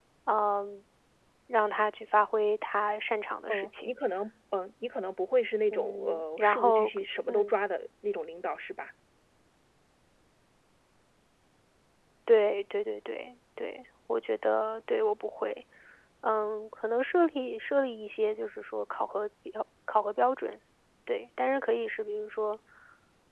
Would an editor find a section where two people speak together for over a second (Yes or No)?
Yes